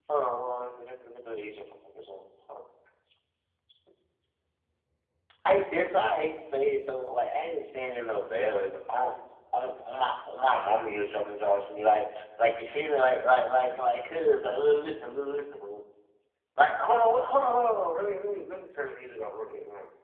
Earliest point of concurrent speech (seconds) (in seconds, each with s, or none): none